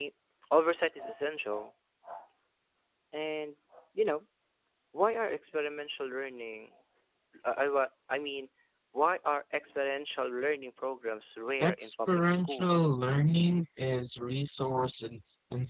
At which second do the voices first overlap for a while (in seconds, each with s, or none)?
11.6 s